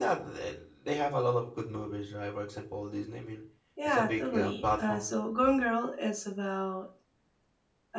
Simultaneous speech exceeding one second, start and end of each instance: 3.8-5.1

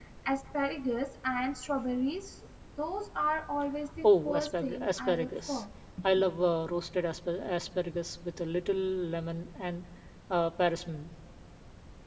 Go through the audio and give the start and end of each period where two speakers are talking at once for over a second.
4.0-5.6

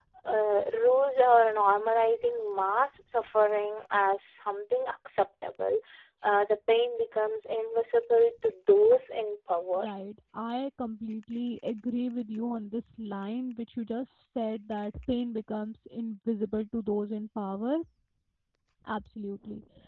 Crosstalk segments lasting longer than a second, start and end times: none

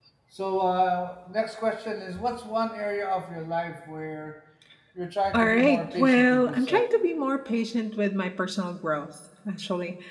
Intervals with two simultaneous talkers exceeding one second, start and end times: 5.3-6.9

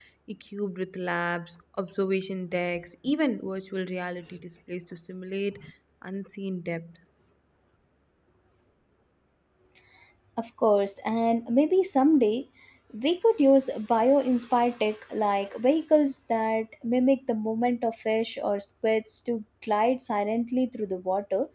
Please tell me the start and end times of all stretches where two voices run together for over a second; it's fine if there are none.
none

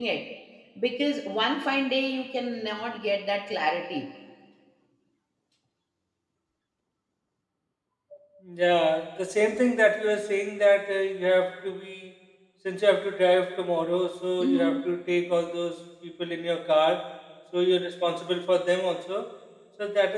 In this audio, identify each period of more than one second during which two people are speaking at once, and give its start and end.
none

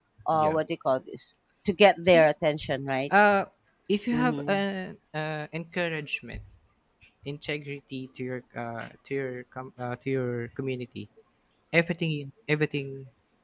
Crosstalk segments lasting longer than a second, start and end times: none

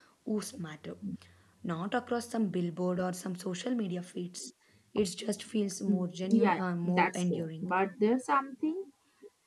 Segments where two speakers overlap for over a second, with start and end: 5.9-7.7

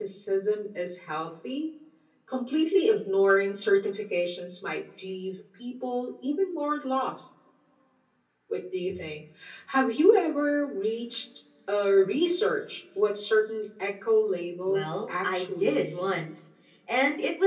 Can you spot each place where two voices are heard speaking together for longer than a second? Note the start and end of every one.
14.7-16.1

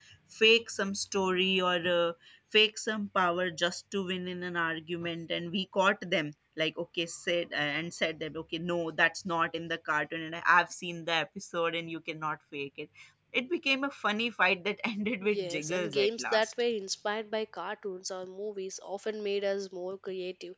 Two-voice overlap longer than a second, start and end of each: 15.2-16.5

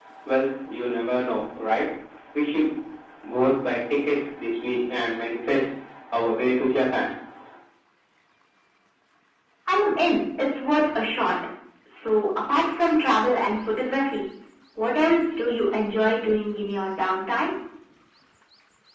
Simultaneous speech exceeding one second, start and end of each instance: none

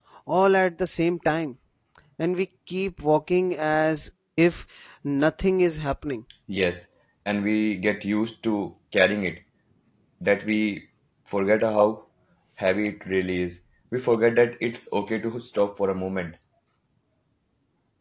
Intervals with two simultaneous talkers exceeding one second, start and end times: none

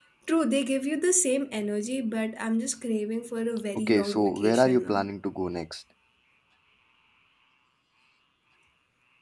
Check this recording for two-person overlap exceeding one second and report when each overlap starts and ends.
3.8-5.1

